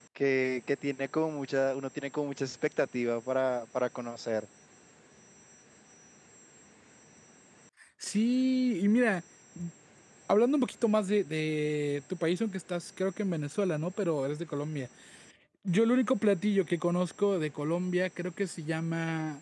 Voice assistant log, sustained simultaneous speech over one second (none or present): none